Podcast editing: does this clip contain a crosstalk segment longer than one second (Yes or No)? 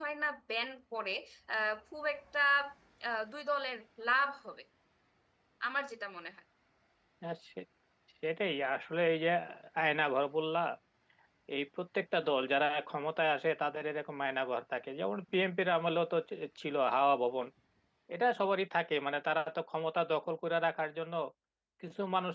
No